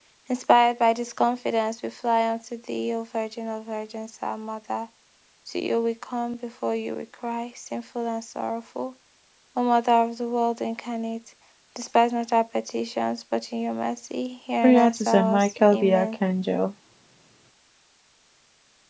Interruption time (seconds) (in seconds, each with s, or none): 14.6 s